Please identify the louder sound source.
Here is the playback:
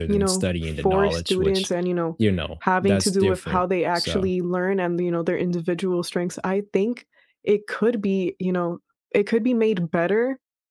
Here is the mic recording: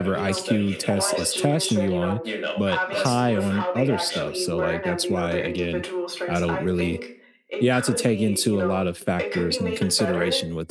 user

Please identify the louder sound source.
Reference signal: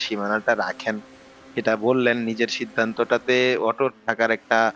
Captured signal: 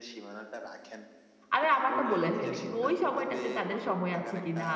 user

